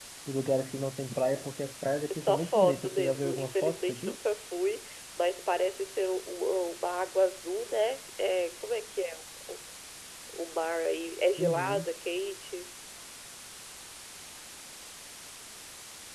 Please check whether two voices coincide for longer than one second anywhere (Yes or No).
Yes